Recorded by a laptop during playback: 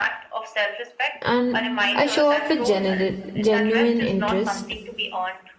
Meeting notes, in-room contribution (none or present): present